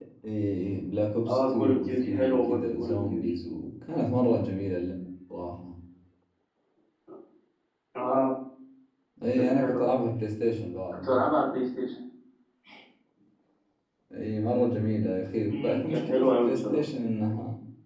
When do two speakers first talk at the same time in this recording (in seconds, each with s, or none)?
1.3 s